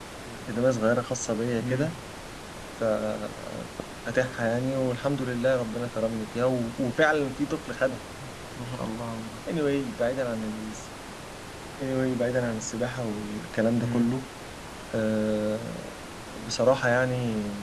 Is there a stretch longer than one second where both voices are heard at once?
No

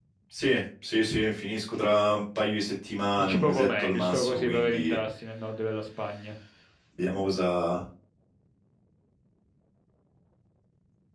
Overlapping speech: Yes, from 3.2 s

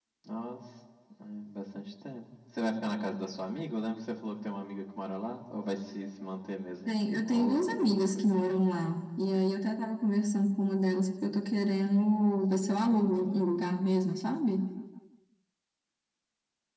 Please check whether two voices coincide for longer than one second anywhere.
Yes, from 6.9 s

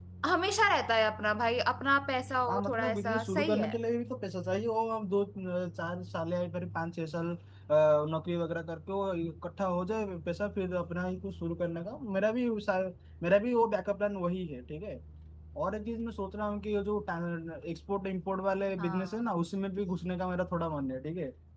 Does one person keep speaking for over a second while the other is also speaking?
Yes, from 2.5 s

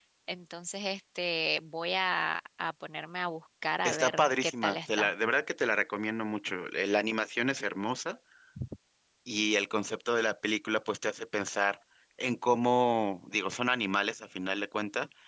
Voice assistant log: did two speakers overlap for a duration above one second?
Yes, from 3.8 s

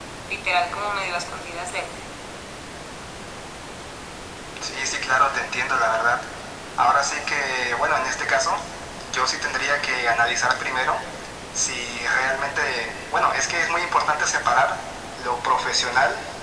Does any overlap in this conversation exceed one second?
No

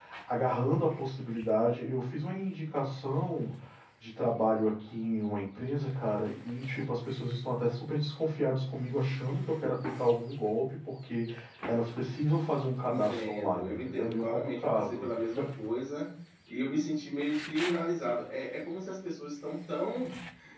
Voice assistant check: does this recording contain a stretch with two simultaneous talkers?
Yes, from 12.8 s

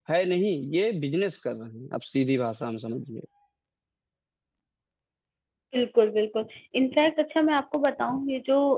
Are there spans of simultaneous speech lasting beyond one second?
No

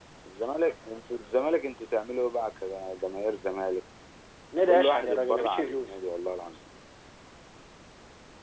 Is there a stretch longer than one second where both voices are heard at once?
Yes, from 4.7 s

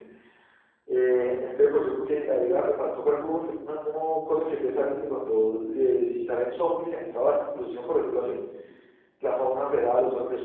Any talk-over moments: No

